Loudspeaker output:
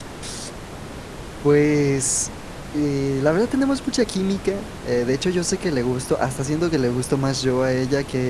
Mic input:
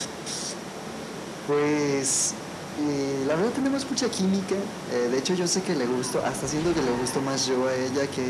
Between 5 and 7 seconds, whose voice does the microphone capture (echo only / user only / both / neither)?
echo only